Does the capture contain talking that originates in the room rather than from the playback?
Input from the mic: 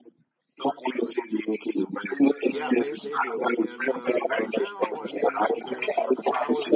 Yes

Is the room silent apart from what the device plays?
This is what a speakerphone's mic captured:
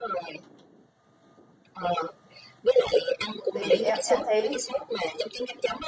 No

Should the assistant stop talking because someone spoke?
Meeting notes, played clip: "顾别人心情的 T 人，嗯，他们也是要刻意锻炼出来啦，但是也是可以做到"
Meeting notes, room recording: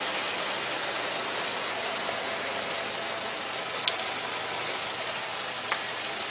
No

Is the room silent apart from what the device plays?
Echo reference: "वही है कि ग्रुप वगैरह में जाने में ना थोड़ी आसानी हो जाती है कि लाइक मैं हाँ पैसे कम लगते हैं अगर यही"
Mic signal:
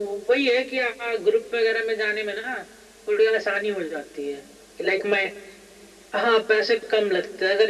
Yes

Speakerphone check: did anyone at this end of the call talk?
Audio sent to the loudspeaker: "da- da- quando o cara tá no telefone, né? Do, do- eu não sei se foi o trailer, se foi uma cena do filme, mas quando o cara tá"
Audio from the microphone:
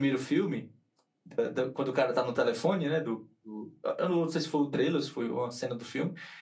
No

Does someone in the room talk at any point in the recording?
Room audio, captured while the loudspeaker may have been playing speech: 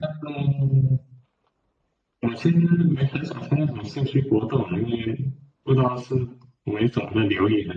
No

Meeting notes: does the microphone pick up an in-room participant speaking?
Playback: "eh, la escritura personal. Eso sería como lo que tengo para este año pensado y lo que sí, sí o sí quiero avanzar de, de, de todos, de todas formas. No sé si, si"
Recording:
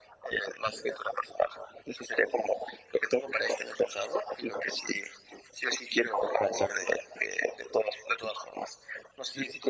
No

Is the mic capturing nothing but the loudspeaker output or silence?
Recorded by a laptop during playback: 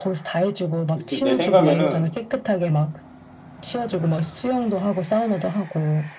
No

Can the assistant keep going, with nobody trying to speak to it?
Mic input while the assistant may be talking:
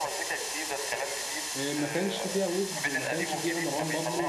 No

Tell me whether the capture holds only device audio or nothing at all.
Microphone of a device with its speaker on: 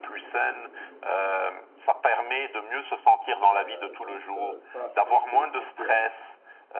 No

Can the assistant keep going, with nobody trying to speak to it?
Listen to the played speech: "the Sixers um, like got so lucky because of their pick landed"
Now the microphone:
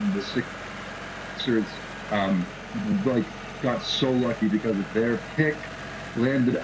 Yes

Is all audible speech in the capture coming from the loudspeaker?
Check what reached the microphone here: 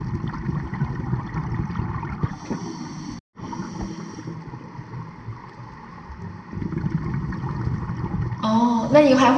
No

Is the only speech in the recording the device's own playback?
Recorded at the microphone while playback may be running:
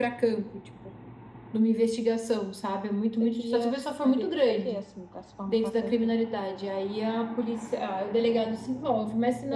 Yes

